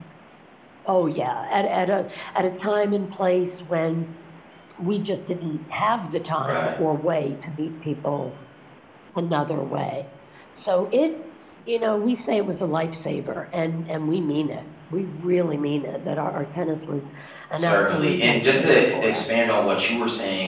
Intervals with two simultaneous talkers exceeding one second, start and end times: 17.5-19.4

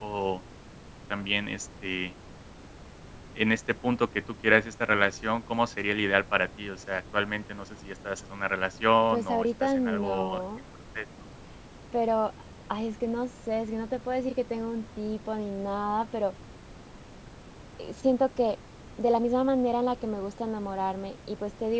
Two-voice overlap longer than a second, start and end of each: 9.1-10.4

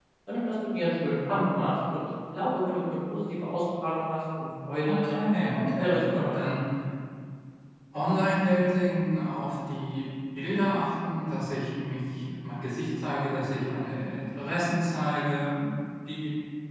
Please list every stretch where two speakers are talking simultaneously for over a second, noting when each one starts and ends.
4.8-6.4

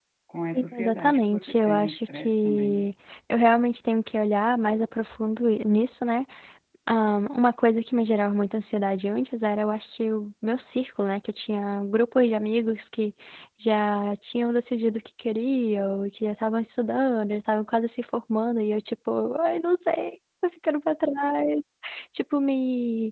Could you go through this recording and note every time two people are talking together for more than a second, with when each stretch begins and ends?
0.5-2.9

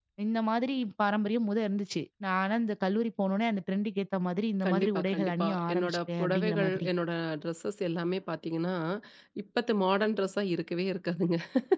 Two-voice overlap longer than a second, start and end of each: 4.6-6.9

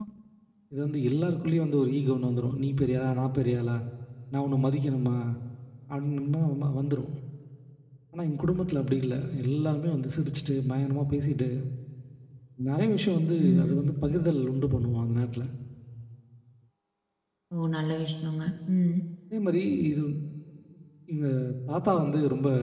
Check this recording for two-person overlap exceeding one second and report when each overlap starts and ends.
none

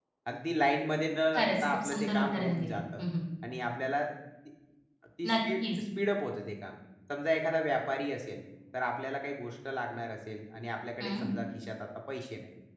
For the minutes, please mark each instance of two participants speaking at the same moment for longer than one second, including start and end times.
1.4-3.0

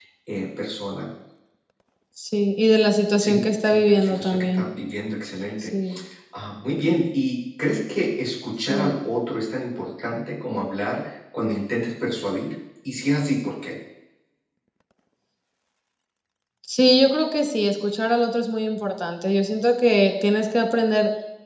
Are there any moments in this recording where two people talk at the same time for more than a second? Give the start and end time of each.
3.2-4.6

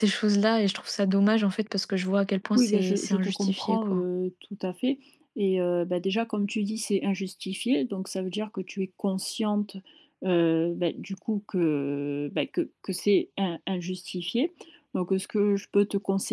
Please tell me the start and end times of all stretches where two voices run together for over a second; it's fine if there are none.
2.5-4.0

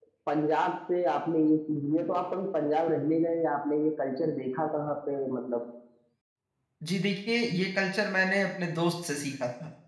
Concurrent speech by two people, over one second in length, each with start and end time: none

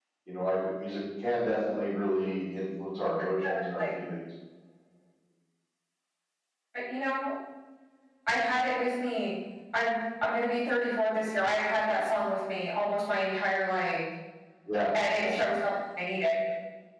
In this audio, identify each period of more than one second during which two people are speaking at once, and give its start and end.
none

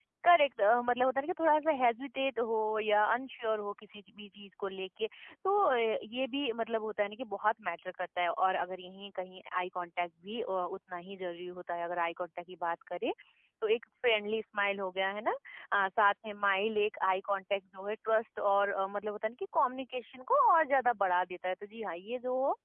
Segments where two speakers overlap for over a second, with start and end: none

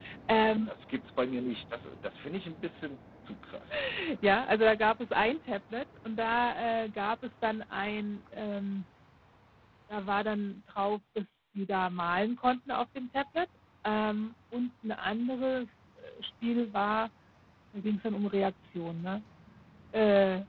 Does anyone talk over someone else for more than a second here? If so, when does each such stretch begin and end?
none

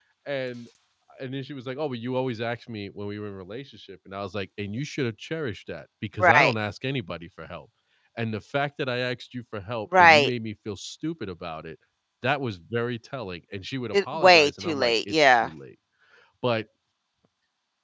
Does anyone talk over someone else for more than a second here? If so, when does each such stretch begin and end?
13.9-15.5

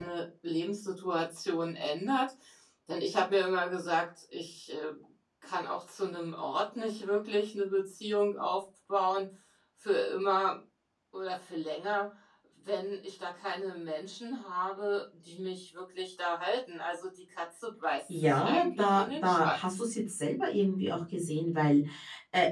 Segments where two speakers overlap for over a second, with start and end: 18.1-19.8

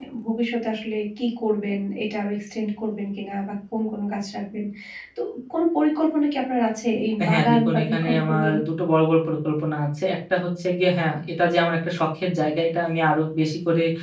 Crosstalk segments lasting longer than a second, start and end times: 7.3-8.6

